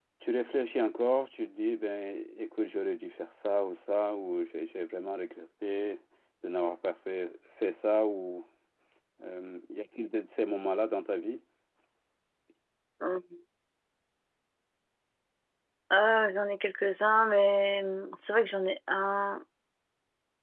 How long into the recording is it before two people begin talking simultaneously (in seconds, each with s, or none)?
none